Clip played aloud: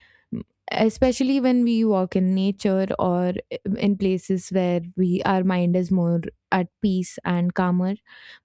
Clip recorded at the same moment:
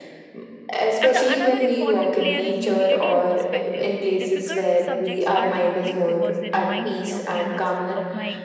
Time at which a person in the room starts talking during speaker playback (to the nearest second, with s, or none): 1 s